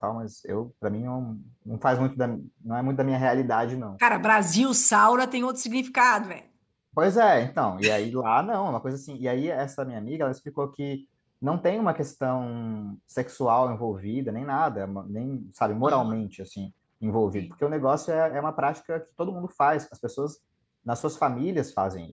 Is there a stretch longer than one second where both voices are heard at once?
No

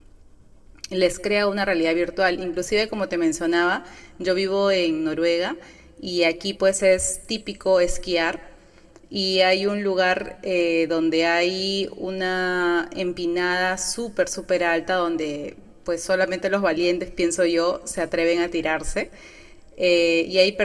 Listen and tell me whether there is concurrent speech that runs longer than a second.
No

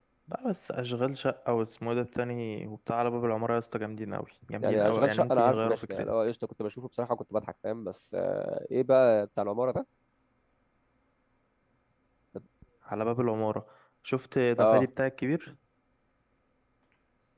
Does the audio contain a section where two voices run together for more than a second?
Yes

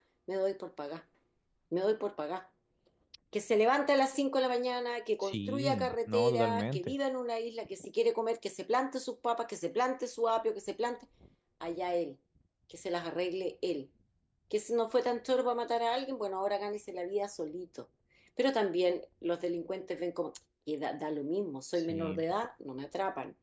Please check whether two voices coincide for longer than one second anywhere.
Yes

